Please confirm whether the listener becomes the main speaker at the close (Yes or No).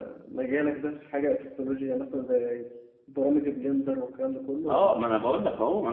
Yes